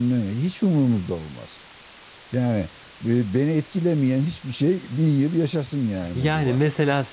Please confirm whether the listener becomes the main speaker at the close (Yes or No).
Yes